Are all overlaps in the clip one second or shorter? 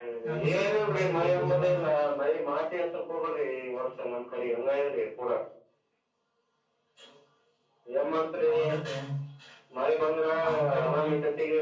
No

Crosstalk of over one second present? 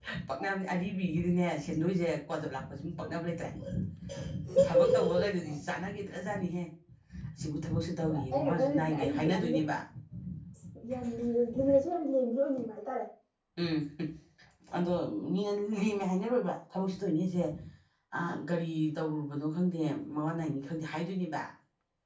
Yes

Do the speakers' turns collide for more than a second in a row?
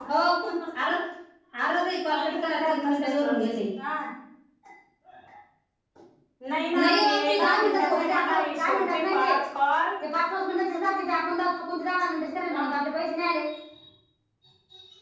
Yes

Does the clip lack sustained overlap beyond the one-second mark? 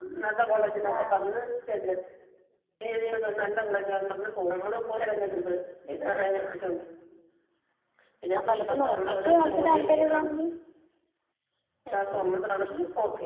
No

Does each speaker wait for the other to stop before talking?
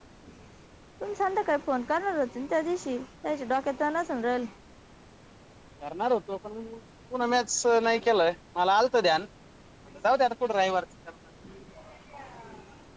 Yes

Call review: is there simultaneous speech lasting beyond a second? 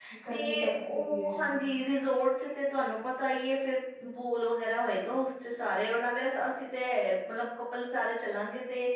Yes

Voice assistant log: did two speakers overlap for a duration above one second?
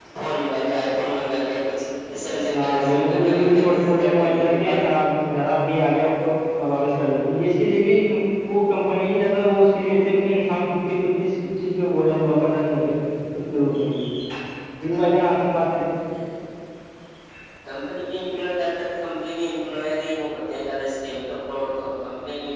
Yes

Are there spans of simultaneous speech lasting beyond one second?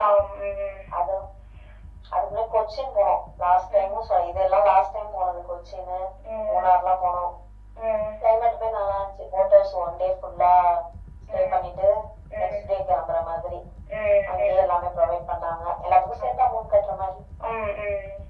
No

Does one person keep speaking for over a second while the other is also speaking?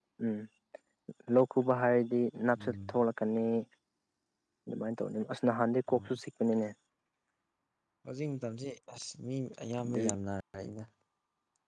No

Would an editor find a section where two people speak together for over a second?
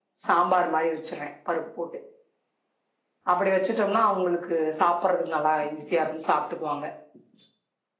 No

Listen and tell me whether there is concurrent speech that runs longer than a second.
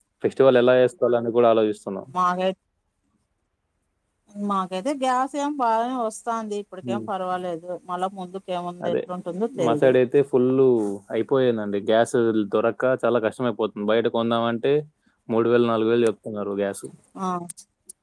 No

